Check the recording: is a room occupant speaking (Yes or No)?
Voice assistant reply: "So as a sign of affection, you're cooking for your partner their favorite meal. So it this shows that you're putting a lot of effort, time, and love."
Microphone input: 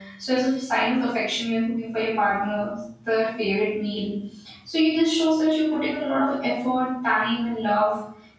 No